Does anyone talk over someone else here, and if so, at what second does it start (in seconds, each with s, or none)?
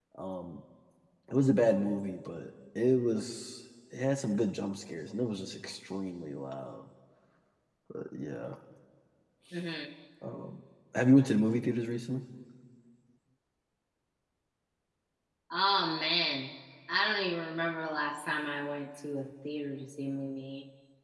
none